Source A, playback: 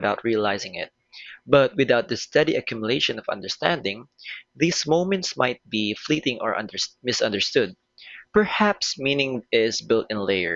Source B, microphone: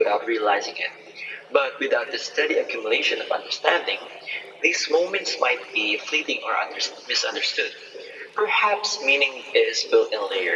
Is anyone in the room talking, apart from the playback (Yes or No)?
No